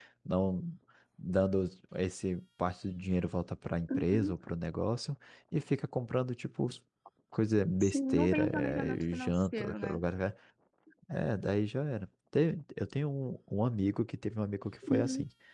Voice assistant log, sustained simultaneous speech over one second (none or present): present